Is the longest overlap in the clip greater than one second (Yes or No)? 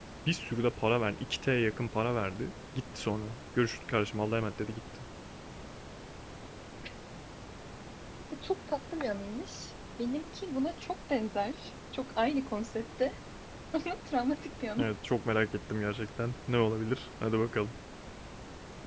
No